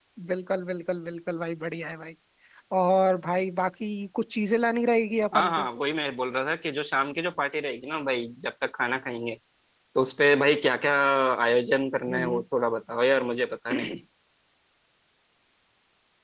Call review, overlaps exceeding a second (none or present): none